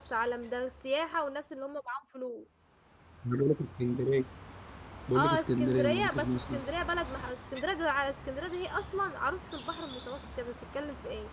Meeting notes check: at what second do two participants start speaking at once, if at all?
5 s

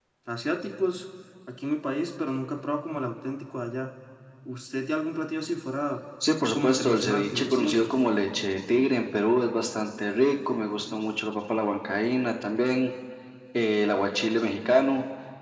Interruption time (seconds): 7 s

